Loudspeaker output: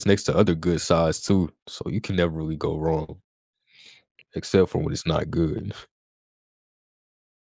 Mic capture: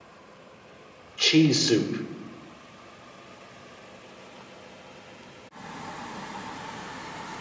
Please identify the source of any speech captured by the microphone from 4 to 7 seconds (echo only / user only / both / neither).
neither